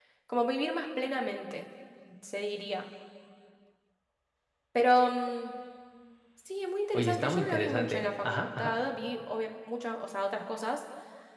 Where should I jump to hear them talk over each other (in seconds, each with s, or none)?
6.9 s